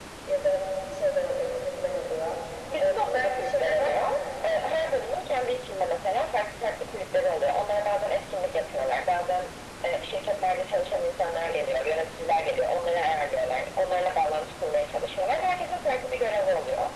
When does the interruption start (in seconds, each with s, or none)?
2.8 s